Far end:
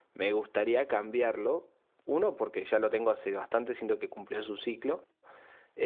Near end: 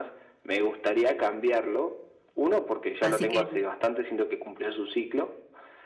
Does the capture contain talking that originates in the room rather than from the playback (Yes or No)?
Yes